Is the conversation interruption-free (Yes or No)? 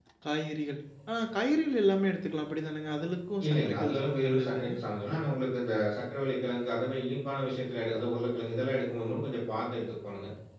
No